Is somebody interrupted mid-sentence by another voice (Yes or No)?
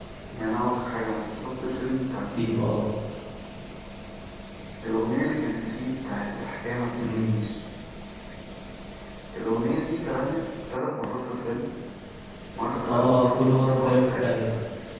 Yes